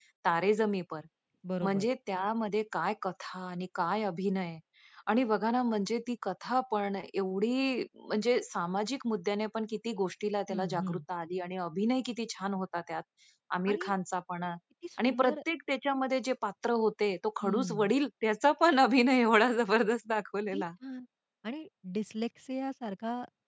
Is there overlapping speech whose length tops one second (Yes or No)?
No